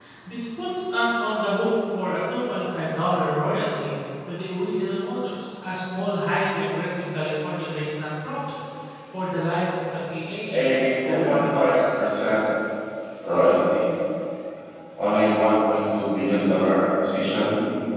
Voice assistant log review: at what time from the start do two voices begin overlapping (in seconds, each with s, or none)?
10.5 s